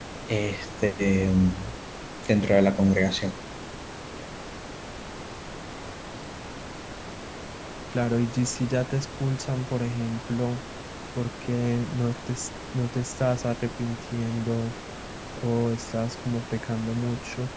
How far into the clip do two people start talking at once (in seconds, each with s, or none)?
none